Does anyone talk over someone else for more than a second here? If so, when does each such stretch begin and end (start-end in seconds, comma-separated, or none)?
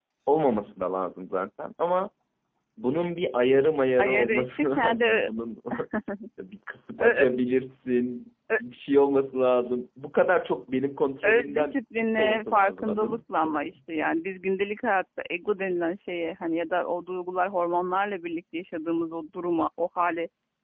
4.0-5.3, 11.2-13.2